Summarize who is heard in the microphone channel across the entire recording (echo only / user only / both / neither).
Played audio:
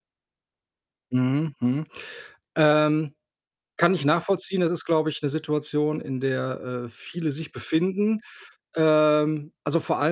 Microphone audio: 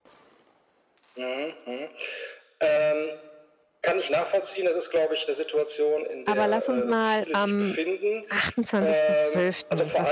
both